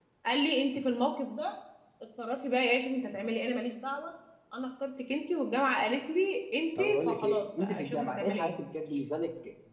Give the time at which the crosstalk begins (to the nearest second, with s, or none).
7 s